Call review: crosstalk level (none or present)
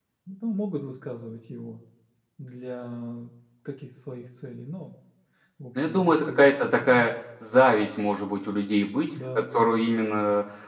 present